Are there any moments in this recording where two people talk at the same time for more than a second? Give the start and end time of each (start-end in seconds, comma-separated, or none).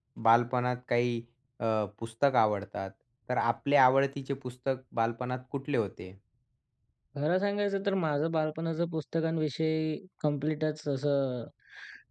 none